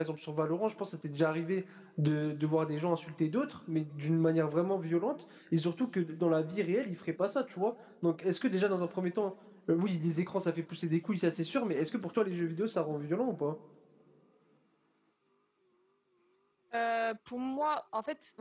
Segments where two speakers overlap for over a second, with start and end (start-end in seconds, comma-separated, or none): none